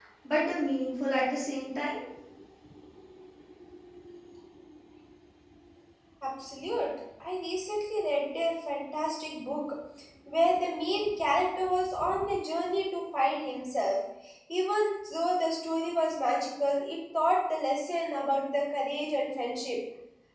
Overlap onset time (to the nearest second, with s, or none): none